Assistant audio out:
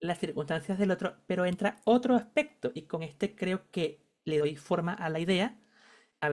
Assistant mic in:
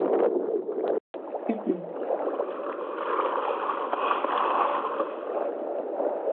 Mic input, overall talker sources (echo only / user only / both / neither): user only